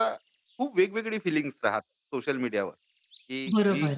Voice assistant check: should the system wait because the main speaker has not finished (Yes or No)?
Yes